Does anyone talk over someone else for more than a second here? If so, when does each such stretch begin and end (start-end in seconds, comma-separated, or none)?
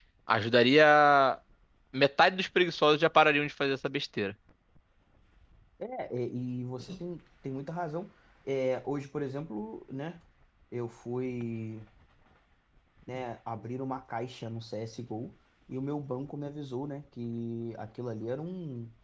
none